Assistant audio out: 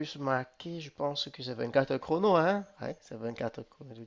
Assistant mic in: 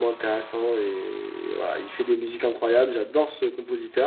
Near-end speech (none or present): present